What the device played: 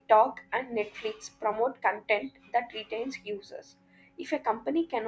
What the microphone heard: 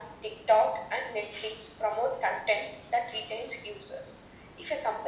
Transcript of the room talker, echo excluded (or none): none